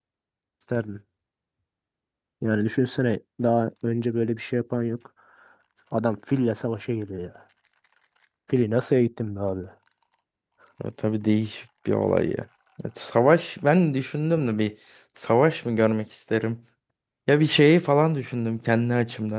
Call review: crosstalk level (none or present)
none